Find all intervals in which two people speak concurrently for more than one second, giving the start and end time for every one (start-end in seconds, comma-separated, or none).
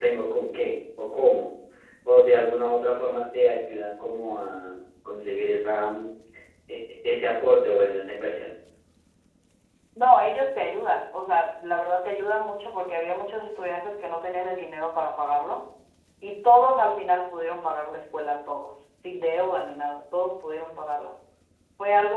none